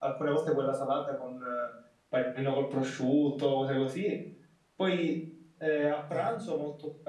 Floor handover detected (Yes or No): No